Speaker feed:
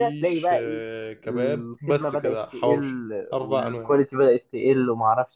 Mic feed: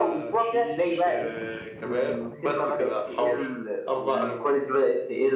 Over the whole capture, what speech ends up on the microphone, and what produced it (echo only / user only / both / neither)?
echo only